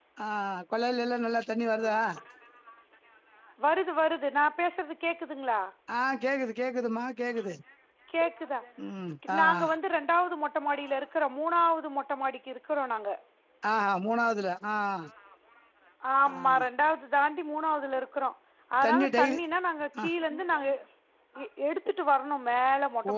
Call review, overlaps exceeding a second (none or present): none